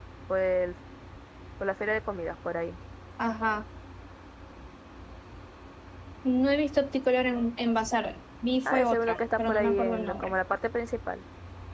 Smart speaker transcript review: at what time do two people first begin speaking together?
9 s

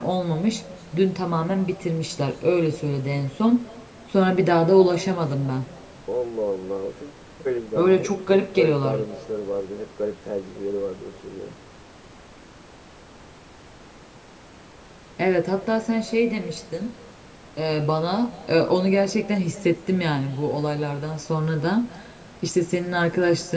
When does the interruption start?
8 s

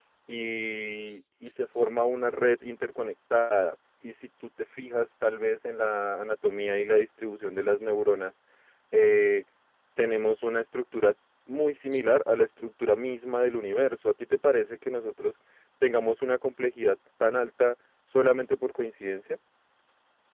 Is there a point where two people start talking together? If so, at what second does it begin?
none

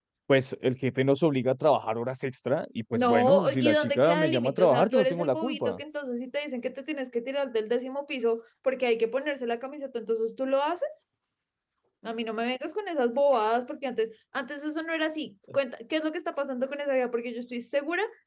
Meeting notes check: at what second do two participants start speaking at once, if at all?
3 s

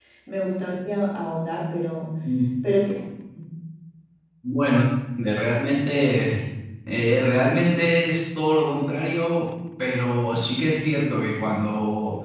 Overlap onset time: none

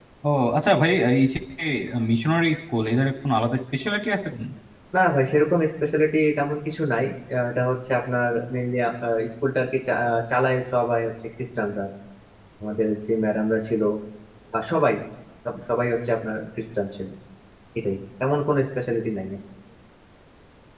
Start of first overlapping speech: none

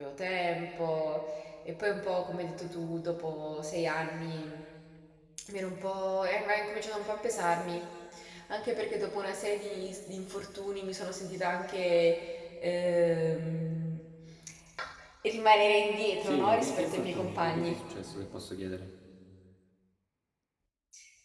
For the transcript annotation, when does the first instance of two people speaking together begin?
16 s

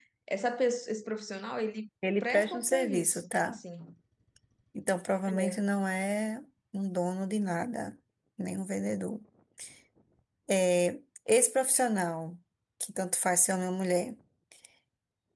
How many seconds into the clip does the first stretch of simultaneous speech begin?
2 s

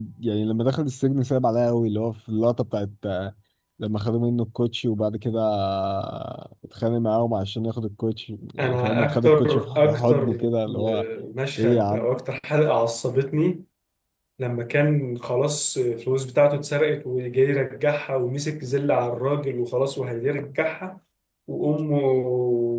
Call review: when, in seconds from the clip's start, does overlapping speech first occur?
9 s

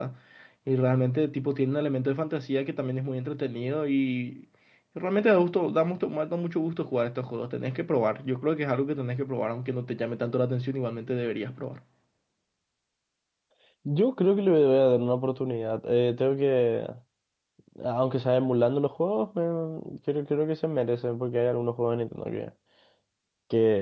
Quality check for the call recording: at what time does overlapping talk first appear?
none

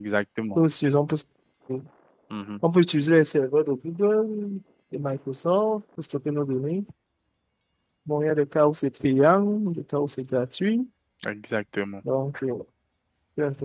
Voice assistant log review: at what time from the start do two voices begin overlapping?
none

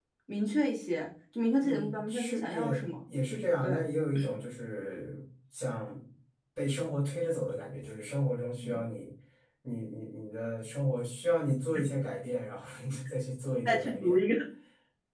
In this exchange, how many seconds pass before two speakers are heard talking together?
2 s

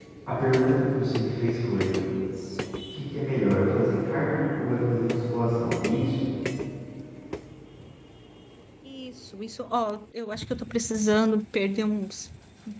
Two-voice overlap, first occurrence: none

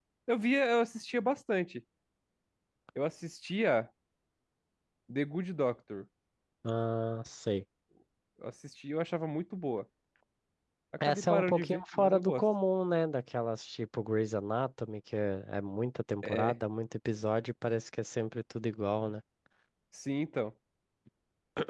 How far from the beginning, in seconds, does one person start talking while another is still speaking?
11 s

